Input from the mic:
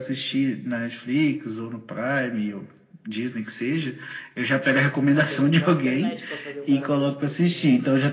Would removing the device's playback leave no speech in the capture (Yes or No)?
No